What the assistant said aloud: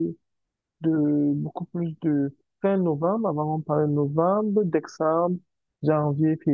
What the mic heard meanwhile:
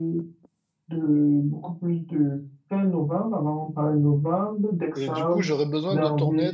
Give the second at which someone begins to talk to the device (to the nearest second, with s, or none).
5 s